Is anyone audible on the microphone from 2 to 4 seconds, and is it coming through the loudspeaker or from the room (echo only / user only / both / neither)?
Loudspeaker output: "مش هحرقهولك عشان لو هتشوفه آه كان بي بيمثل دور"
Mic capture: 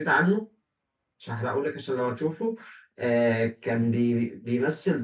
echo only